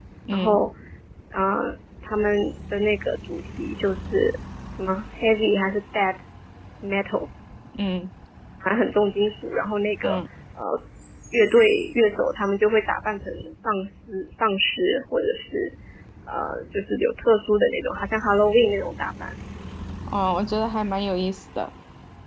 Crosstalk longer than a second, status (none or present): none